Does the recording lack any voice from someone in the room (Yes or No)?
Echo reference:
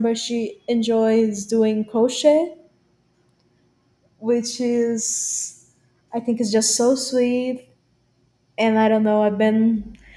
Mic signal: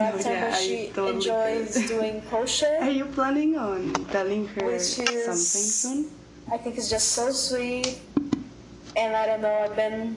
No